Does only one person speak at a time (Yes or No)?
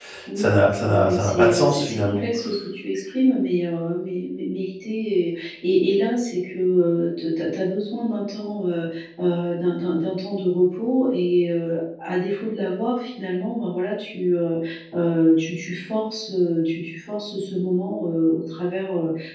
No